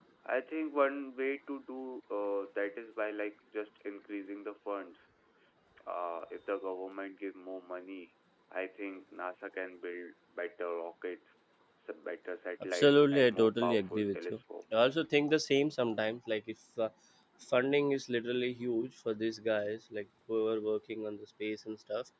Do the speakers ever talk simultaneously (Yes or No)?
Yes